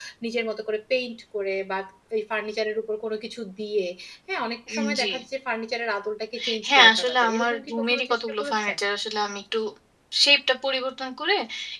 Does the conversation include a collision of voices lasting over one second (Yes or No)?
Yes